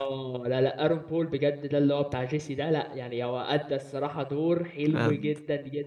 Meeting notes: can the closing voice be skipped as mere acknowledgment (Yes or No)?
Yes